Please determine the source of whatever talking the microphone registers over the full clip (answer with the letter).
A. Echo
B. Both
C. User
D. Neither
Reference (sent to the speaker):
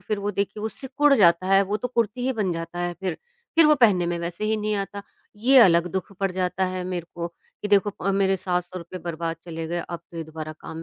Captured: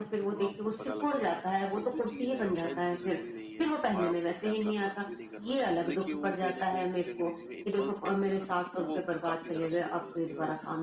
B